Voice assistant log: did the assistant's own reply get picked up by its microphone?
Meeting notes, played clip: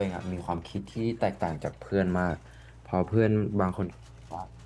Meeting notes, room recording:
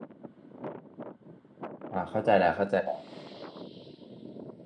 No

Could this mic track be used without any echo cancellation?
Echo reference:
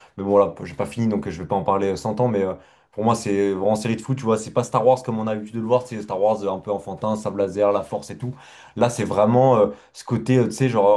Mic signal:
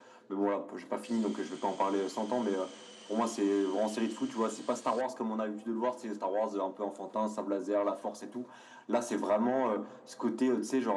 No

